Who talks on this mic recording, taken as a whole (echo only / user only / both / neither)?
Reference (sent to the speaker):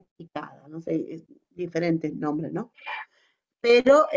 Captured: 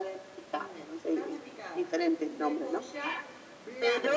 both